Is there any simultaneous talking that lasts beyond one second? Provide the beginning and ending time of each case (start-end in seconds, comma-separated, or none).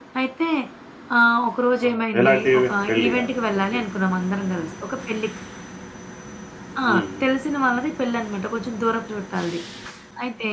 1.9-3.2